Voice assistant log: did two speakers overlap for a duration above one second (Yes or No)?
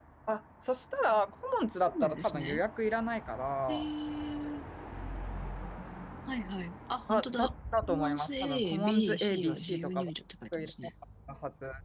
Yes